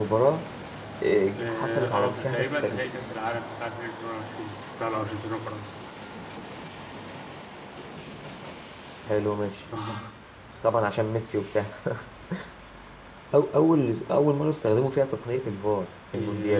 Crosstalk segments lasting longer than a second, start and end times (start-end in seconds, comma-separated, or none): 1.4-2.8